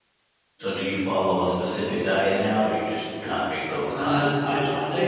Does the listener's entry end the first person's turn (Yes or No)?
Yes